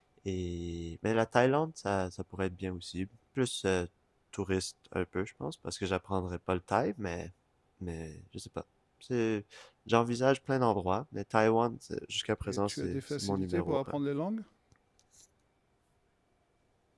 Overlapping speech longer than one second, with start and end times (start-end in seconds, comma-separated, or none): 12.4-13.9